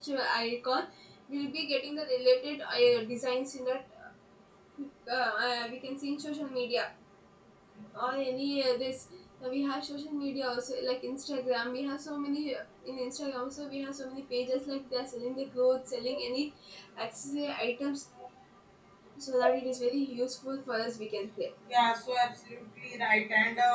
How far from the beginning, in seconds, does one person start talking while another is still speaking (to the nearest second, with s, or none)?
none